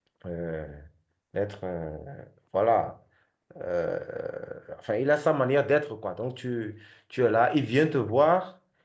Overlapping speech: No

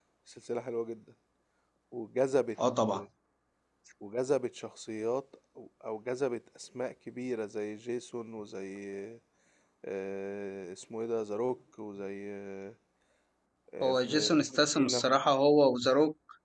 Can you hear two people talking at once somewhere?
Yes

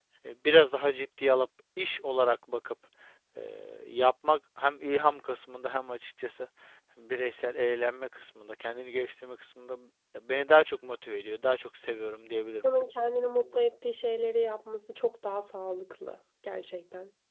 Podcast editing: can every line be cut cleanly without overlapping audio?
Yes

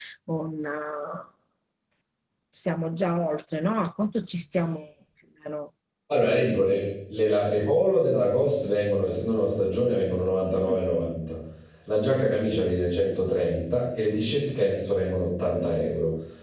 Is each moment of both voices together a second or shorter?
Yes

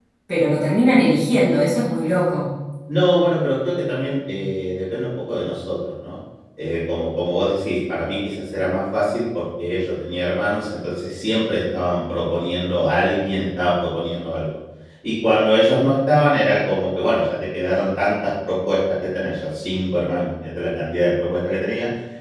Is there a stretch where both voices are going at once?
No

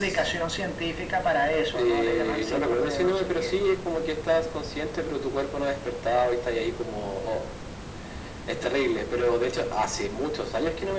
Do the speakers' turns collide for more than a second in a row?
Yes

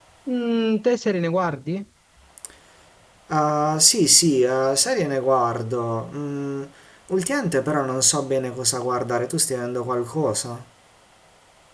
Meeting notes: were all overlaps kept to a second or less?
Yes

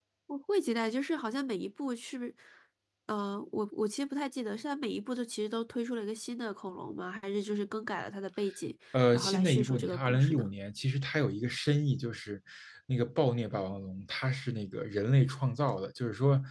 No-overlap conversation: No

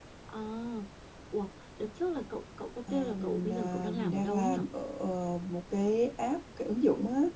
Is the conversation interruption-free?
No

